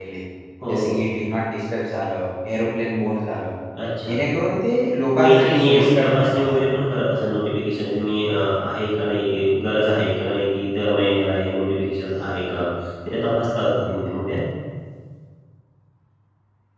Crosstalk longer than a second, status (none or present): present